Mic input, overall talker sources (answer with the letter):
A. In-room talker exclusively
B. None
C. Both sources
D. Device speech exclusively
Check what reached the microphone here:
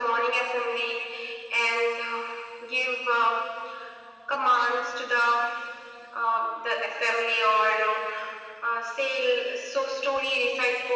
D